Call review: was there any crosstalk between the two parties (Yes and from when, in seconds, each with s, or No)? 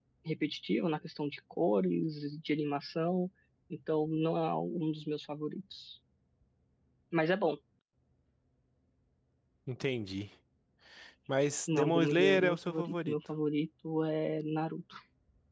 Yes, from 11.7 s